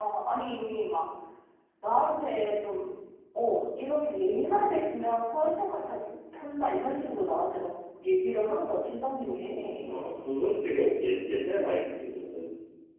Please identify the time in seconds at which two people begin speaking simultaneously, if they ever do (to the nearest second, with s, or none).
none